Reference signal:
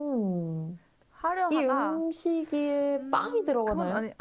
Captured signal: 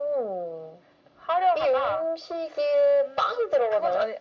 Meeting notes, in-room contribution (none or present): none